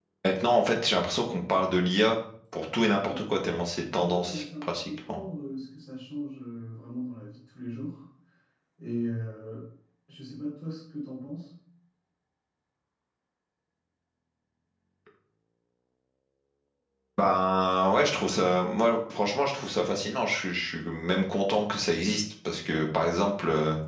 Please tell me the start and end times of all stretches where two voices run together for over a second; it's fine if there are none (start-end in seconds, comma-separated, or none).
4.0-5.2